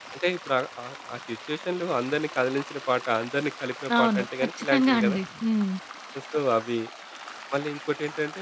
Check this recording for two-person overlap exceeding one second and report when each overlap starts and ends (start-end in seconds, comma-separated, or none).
4.0-5.2